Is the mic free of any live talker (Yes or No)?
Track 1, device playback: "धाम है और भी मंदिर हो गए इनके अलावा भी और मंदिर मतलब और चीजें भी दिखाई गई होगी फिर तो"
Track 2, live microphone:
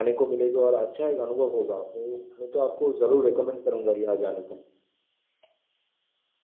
No